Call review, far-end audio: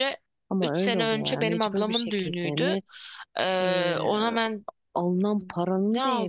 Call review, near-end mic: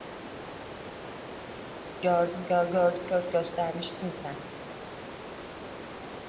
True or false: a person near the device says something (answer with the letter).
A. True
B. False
A